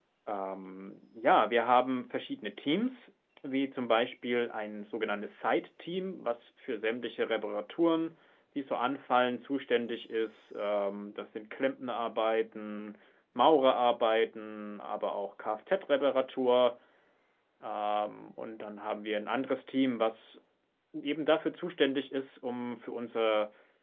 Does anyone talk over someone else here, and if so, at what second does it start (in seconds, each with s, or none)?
none